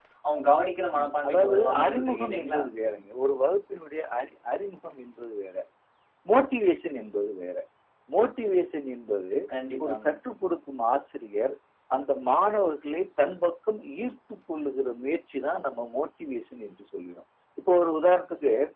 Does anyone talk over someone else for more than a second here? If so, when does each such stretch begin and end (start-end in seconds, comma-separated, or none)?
1.0-2.6